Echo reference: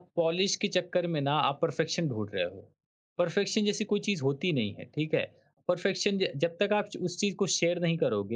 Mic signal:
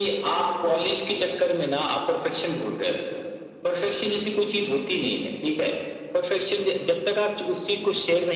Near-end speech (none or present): none